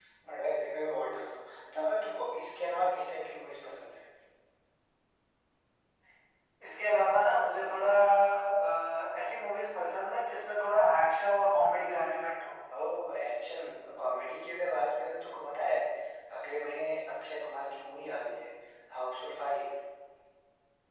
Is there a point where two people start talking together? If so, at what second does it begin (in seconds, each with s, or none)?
none